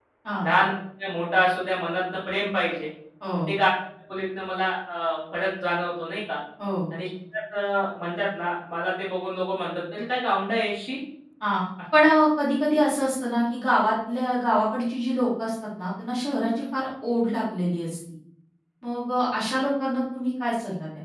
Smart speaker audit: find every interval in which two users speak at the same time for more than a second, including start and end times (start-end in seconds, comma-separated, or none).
none